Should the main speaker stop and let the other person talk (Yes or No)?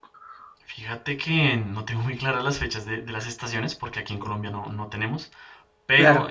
No